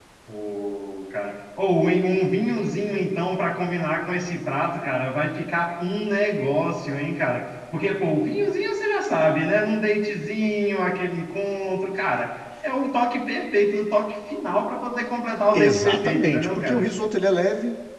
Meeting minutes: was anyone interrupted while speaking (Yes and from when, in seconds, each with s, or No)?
Yes, from 15.5 s